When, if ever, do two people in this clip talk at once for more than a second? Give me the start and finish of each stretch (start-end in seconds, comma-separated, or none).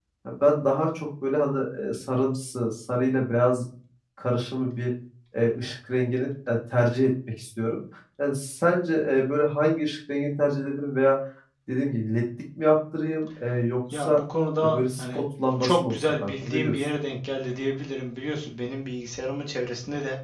15.6-16.9